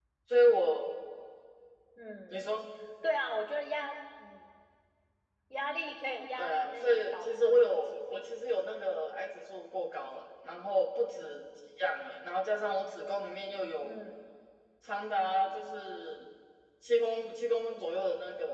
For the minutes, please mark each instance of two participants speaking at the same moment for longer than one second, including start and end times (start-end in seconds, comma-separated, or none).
6.3-8.2